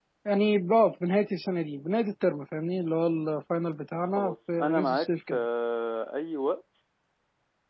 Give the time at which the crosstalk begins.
4.0 s

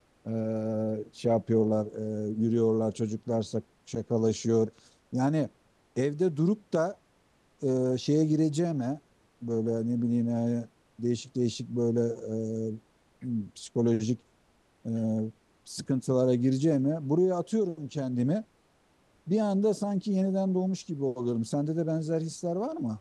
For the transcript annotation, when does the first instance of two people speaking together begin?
none

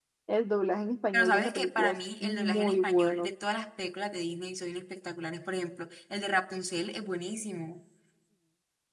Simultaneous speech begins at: 1.1 s

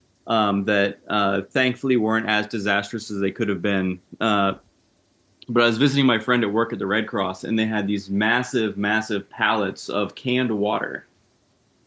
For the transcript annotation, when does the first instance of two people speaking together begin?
none

